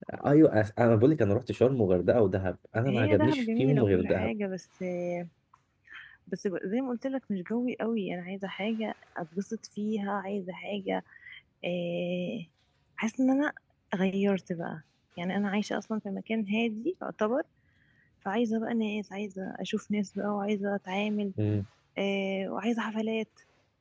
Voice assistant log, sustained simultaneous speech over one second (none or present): present